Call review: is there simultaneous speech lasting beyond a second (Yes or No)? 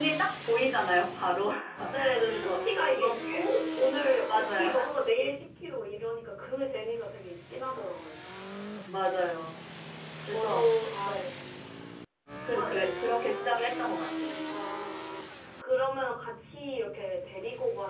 Yes